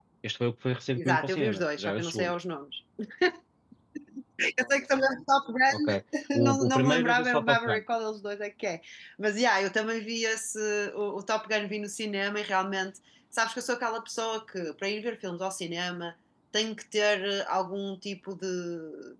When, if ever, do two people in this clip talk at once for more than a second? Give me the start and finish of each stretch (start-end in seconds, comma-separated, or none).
1.0-2.4, 6.4-7.8